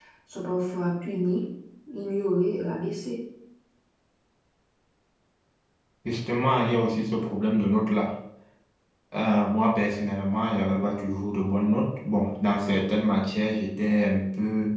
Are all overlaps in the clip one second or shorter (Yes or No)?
Yes